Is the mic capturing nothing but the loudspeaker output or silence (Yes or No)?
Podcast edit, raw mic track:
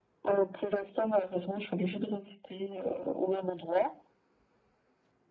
Yes